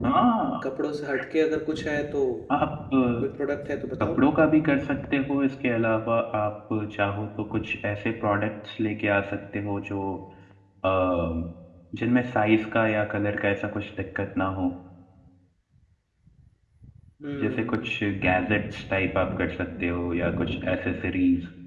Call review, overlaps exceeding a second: none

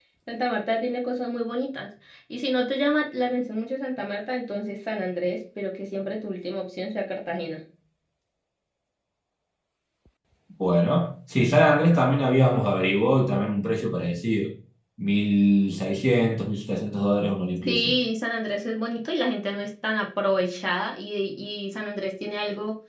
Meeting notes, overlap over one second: none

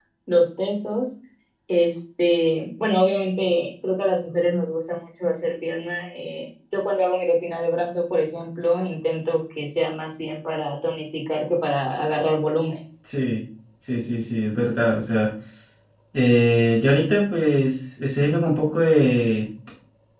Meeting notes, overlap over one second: none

